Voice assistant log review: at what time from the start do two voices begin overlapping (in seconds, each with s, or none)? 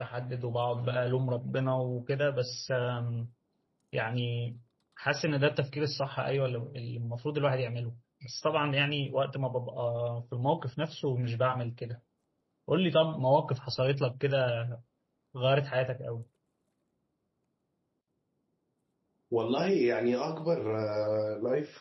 none